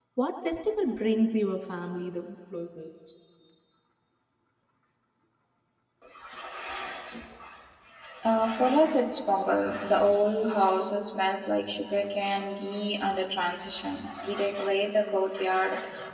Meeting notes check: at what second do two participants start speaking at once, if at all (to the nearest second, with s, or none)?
none